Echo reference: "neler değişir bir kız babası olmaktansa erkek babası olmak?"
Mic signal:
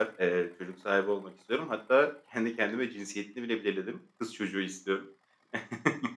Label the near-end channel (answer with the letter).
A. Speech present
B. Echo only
A